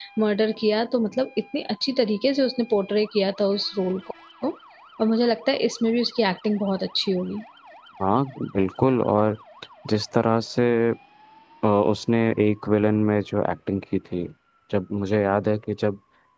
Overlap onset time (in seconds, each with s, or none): none